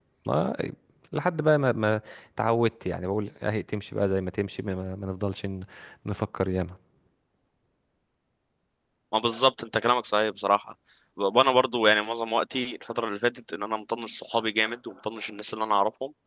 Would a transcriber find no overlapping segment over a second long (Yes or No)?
Yes